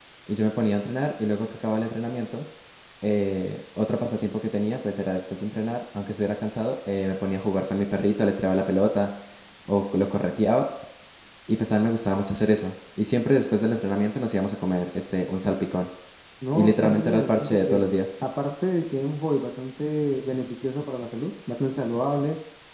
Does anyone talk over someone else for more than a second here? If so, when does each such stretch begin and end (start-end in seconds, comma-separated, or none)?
16.5-17.8